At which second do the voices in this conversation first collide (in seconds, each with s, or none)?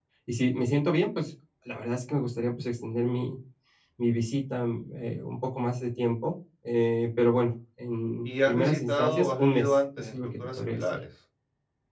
8.2 s